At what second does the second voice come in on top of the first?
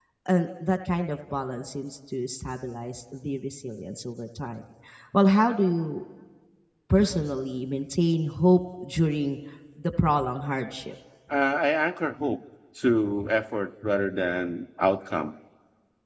none

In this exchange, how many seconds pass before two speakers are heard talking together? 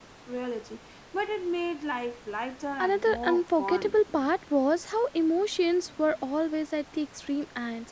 2.8 s

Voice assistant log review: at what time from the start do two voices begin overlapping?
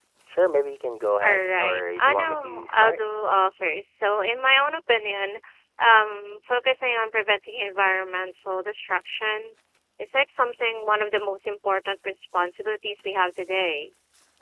1.2 s

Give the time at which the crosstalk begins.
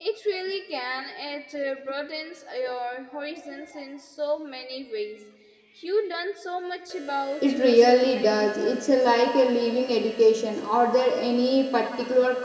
7.4 s

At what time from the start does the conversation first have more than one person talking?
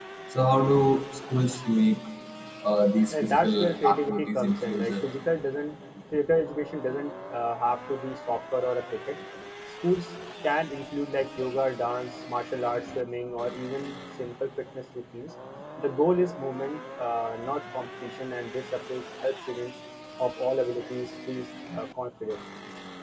3.1 s

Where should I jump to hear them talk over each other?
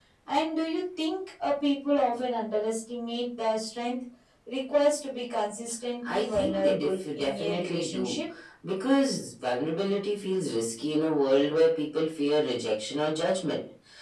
6.0 s

